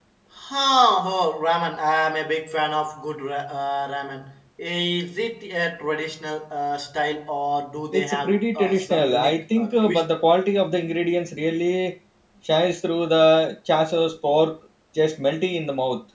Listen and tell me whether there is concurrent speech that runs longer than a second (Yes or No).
Yes